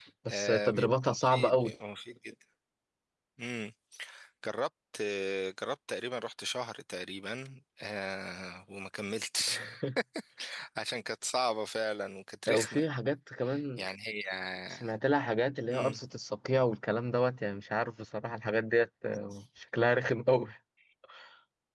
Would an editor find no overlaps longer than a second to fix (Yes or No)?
No